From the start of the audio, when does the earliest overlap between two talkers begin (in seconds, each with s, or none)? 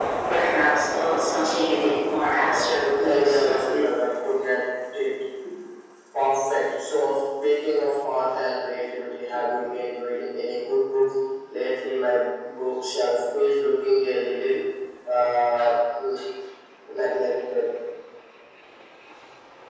2.5 s